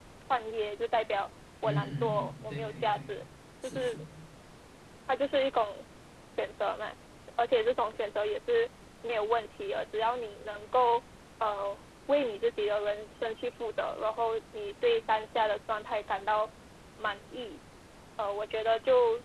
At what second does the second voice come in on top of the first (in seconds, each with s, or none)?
1.6 s